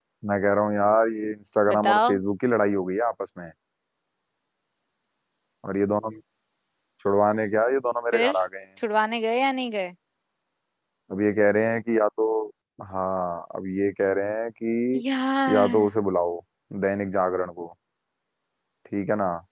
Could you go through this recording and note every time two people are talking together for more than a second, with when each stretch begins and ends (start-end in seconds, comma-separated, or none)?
none